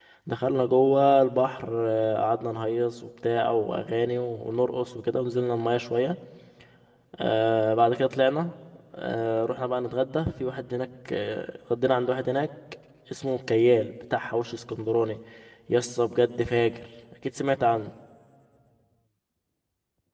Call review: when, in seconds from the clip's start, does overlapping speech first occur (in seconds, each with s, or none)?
none